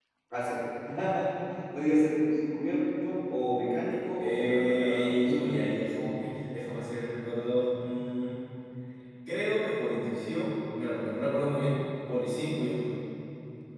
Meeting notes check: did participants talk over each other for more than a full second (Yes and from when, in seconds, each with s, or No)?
Yes, from 4.2 s